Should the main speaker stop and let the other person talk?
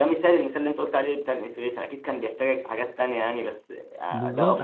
Yes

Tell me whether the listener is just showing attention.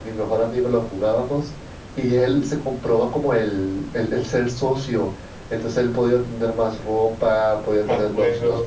Yes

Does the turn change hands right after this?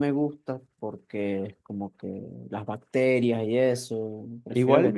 Yes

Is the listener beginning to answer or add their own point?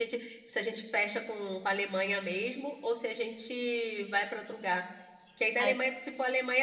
No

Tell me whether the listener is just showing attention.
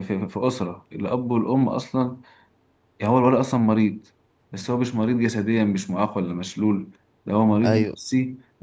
Yes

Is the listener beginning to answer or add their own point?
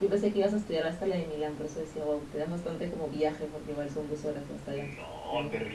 Yes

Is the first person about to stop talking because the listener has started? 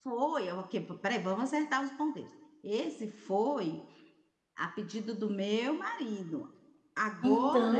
No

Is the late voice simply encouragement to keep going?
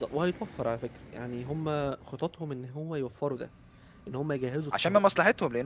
No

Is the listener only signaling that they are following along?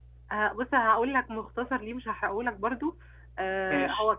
Yes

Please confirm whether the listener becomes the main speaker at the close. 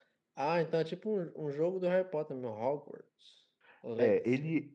Yes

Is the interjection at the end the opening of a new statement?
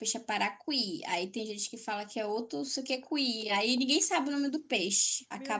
Yes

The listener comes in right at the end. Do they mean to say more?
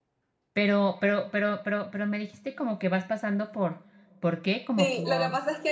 Yes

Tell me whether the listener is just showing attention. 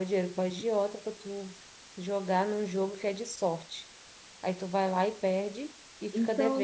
No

